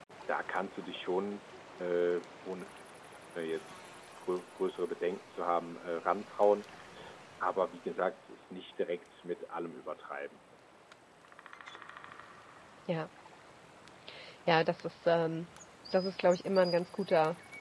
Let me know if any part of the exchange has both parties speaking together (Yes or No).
No